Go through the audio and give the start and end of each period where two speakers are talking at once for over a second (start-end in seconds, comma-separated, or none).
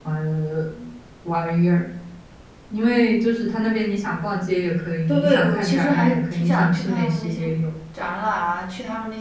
5.1-7.4